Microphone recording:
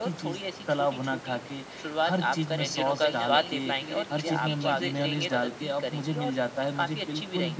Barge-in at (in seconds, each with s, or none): 2.6 s